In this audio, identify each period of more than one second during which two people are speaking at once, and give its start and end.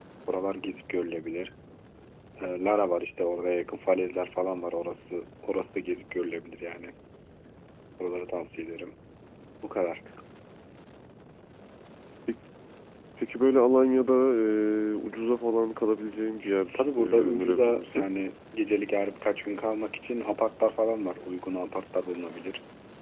16.7-18.1

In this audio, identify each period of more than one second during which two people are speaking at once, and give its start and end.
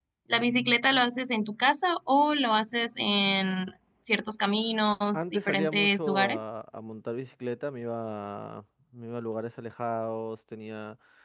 5.1-6.4

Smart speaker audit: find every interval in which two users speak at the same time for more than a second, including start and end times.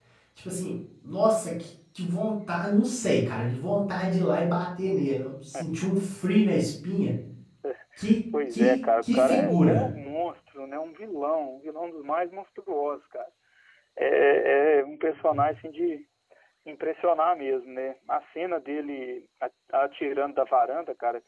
8.5-9.8

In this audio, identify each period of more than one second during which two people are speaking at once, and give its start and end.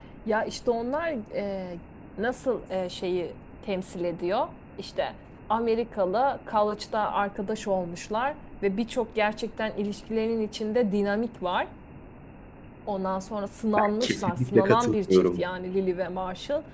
13.8-15.4

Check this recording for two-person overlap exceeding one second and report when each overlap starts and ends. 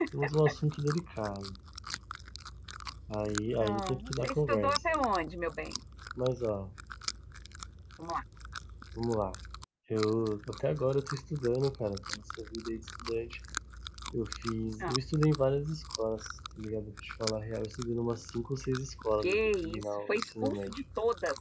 3.6-5.0, 19.2-20.8

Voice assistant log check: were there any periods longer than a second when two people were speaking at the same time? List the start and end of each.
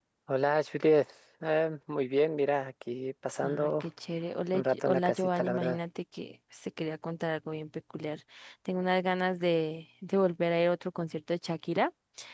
4.5-5.8

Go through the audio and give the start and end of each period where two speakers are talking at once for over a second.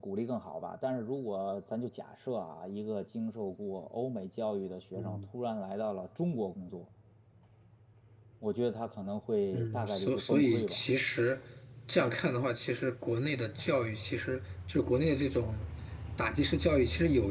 9.5-10.8

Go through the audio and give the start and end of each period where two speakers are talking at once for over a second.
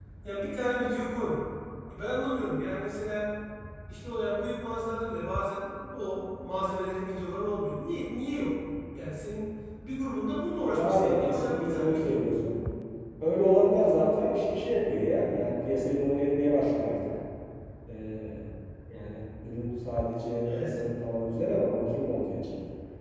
10.7-12.2

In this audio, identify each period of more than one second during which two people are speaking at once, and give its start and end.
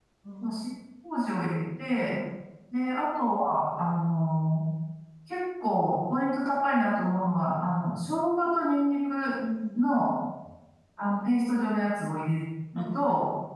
none

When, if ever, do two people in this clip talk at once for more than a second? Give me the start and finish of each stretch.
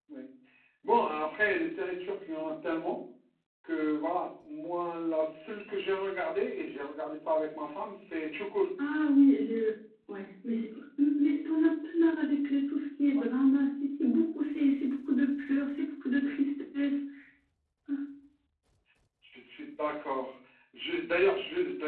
none

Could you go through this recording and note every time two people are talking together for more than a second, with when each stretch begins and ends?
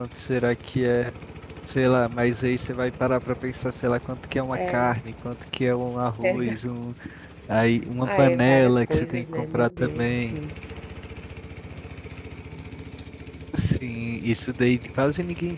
8.0-10.4

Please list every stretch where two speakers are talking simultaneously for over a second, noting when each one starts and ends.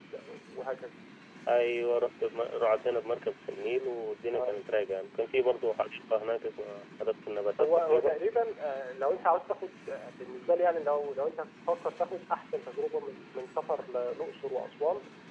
none

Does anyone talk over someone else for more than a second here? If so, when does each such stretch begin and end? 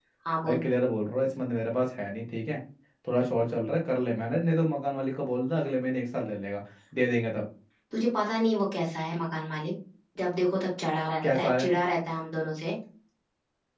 none

